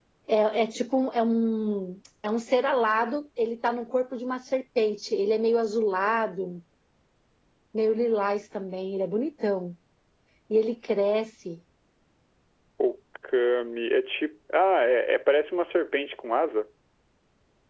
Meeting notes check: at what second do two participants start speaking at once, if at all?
none

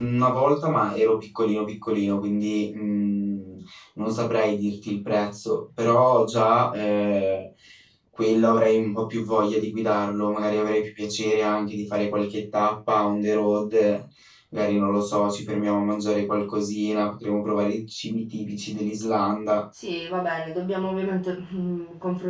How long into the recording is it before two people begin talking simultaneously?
none

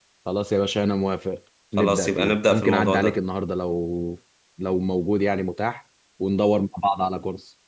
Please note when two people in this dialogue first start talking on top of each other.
2 s

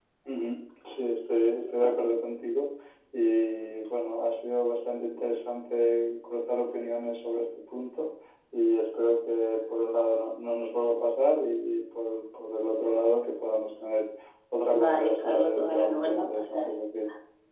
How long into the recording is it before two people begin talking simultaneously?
15 s

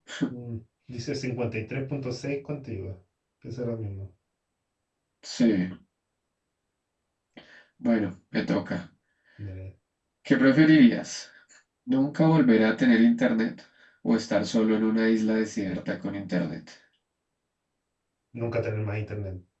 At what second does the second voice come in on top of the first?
none

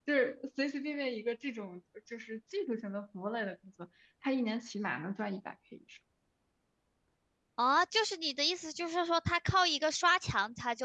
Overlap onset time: none

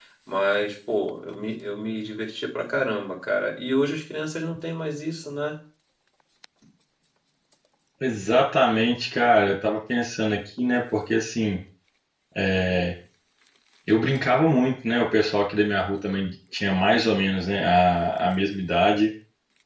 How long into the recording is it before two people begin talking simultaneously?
none

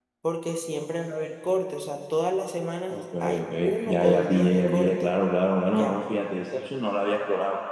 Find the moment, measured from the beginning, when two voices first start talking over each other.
3 s

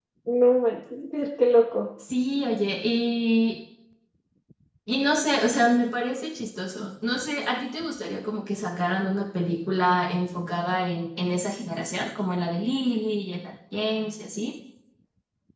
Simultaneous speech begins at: none

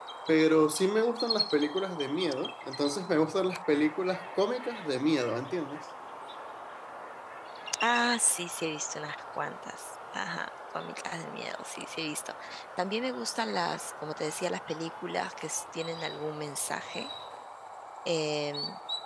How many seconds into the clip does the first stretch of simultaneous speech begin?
none

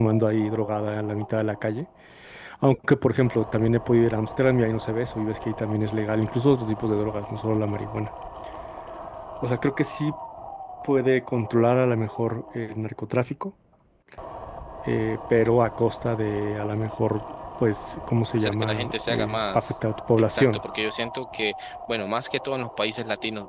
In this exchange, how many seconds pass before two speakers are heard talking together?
18 s

